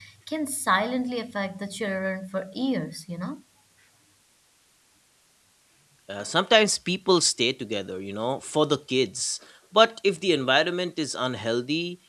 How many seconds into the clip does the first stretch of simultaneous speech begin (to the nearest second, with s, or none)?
none